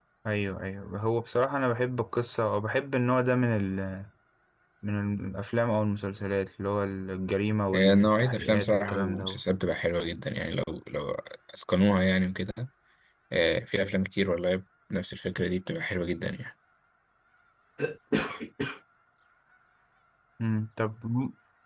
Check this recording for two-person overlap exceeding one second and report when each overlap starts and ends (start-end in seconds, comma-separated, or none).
7.7-9.4